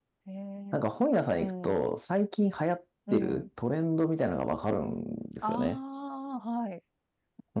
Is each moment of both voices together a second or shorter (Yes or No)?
Yes